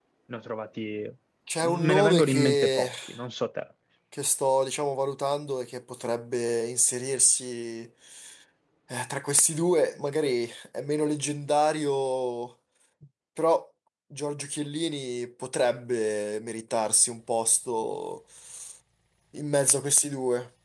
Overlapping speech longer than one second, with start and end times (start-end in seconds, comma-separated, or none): 1.6-2.9